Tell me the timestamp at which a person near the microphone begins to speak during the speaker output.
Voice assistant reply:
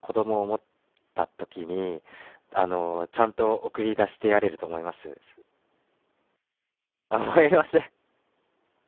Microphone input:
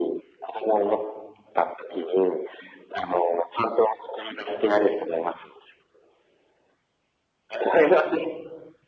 none

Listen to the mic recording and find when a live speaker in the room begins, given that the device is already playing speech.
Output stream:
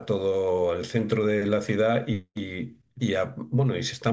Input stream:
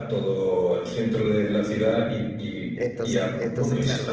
2.7 s

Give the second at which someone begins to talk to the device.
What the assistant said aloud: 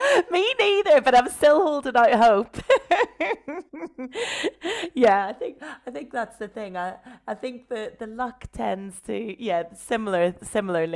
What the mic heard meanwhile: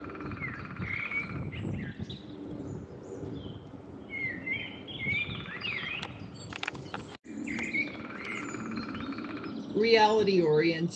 9.7 s

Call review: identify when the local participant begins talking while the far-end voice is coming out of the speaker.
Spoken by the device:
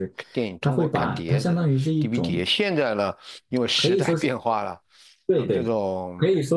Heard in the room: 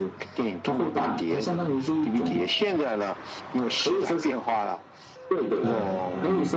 5.6 s

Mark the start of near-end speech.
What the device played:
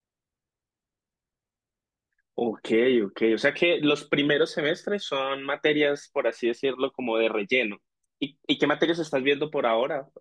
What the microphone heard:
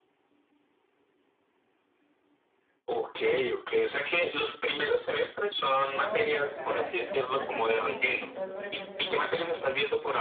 5.4 s

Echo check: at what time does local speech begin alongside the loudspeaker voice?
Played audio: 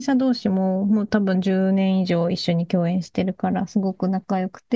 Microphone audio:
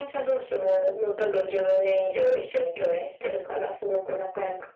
none

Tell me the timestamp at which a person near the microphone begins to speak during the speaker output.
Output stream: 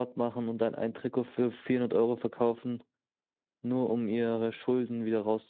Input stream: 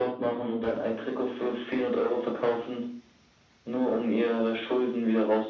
none

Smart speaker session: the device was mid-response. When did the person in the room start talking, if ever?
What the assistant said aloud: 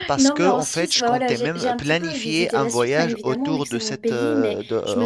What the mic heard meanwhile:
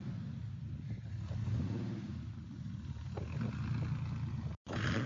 none

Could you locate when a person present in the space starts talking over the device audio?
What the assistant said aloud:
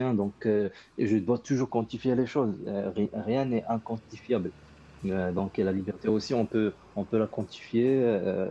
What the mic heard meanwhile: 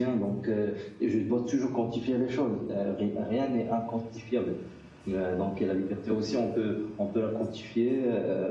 none

